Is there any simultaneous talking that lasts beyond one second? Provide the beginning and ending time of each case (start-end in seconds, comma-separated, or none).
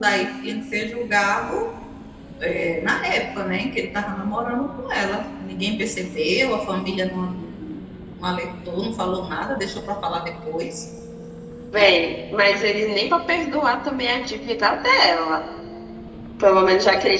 none